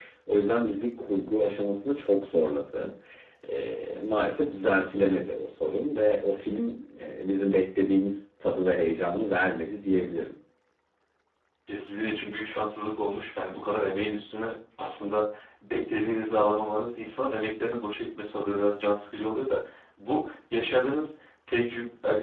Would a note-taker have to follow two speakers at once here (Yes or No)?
No